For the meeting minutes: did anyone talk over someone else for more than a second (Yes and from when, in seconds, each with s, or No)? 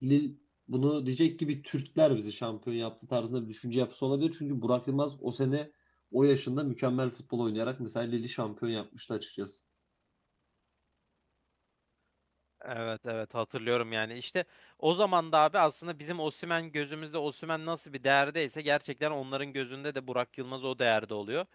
No